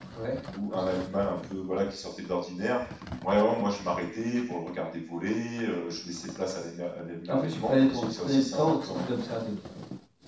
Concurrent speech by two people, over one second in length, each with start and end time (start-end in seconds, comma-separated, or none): 7.3-9.0